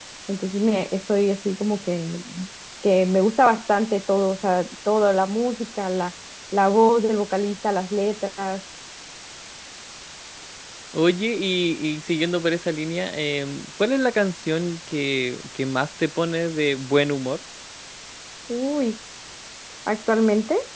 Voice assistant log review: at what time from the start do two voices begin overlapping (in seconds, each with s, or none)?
none